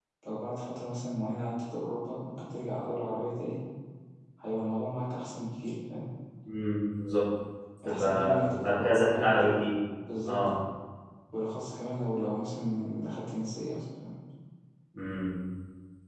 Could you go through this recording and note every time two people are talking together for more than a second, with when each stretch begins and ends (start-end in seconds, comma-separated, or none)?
7.8-9.5